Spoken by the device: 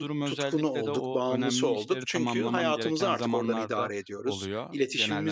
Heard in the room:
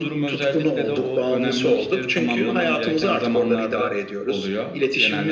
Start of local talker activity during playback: none

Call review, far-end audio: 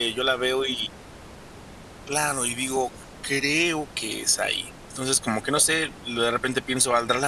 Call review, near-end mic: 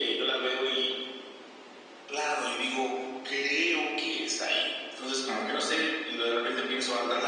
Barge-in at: none

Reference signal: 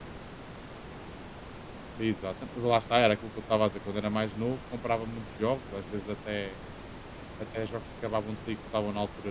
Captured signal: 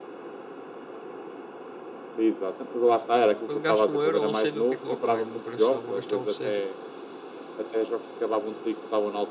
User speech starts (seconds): 3.4 s

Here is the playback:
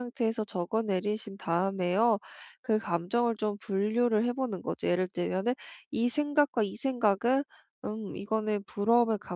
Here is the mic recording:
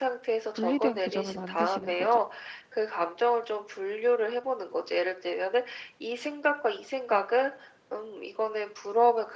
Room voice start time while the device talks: 0.5 s

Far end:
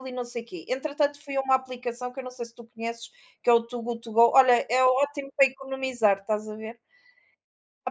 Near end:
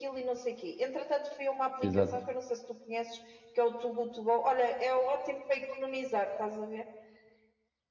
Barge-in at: 1.8 s

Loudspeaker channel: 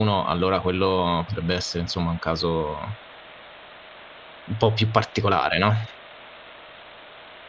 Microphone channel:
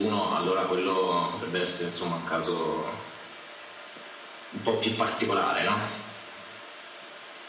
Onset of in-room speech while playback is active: none

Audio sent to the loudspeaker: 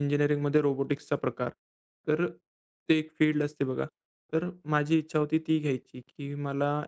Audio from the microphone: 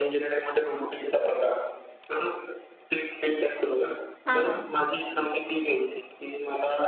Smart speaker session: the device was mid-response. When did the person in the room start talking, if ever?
4.2 s

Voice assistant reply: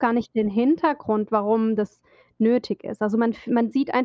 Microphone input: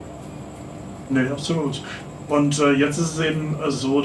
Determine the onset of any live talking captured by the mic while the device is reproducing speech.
1.1 s

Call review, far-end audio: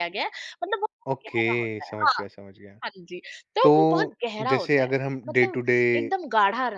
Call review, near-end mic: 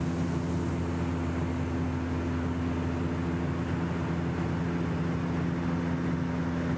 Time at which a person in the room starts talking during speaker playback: none

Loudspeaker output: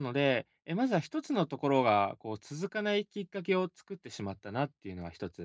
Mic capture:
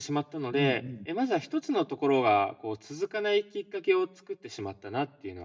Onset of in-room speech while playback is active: 0.5 s

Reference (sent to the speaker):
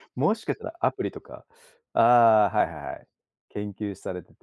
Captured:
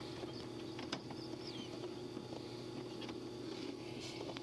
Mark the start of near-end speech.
none

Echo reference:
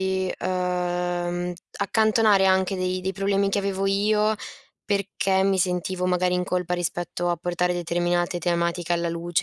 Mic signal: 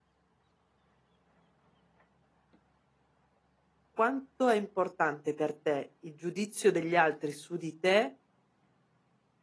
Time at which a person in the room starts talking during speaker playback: 3.9 s

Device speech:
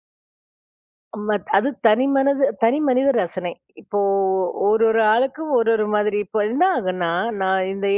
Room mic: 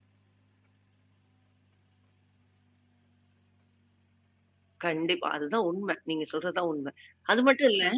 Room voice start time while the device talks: 4.8 s

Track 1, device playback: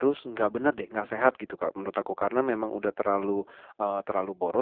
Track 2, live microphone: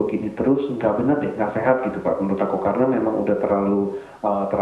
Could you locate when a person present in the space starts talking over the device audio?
none

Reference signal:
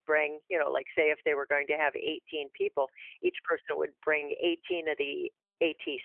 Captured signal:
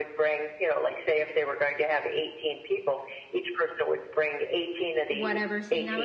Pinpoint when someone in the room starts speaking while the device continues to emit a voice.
5.1 s

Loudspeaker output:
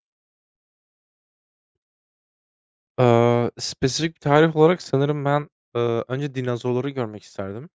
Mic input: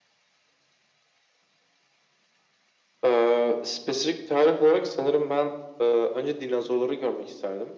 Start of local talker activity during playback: none

